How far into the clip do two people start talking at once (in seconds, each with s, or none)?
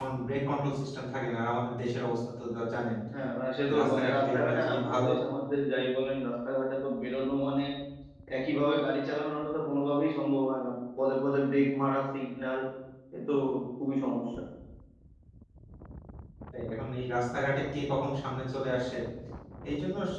3.7 s